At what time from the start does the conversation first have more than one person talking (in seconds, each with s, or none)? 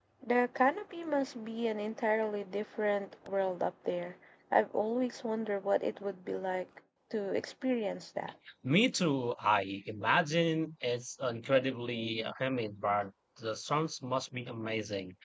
none